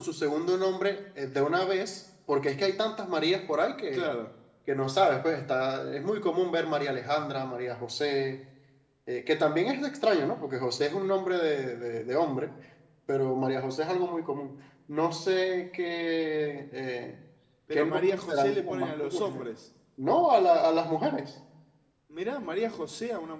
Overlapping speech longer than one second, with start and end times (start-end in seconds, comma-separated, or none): 17.7-19.4